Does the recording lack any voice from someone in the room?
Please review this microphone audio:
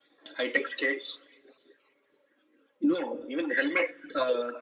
Yes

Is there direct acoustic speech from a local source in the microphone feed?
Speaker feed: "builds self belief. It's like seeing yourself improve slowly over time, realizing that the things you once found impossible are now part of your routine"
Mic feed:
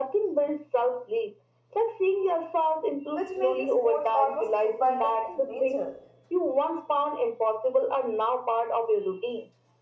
Yes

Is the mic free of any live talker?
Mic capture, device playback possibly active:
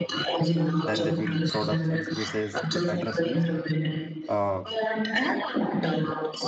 No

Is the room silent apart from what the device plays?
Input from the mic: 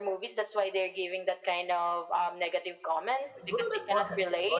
No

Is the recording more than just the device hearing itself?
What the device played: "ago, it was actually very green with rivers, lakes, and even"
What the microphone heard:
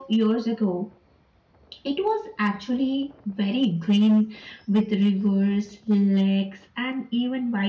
No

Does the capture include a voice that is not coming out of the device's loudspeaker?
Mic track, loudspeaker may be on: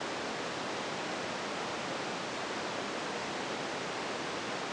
No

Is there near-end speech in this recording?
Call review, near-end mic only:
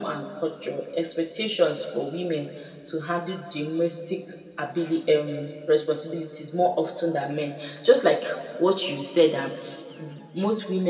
No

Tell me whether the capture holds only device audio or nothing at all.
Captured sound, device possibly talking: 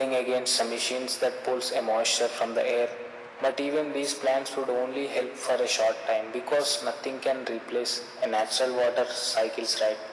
Yes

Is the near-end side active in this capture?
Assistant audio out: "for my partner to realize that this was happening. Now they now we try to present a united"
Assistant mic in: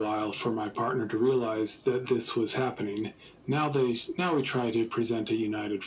No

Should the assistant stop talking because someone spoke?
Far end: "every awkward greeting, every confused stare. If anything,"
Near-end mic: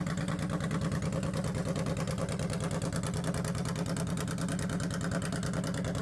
No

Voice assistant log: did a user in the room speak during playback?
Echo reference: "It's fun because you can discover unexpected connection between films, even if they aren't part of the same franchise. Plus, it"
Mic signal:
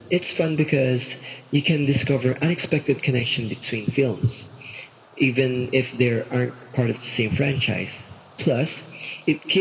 No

